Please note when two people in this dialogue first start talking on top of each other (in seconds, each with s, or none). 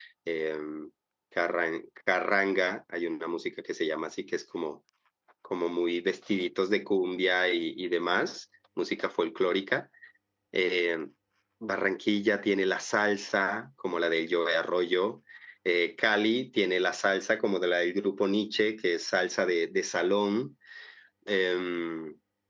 none